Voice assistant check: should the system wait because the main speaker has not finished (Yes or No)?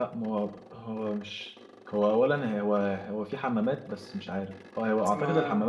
Yes